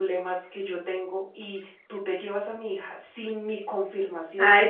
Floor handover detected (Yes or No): Yes